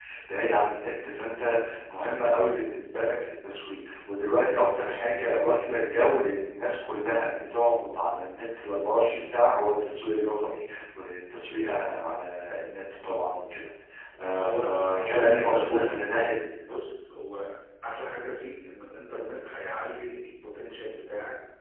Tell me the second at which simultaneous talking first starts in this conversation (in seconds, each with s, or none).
14.4 s